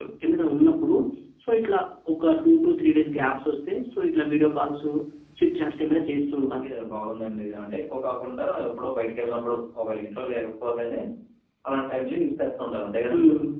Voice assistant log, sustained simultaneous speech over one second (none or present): none